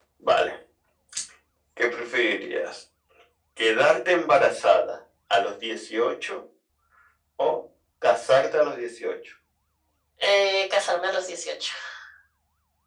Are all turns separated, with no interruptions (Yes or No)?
Yes